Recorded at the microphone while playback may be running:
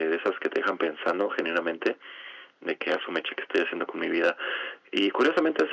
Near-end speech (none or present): none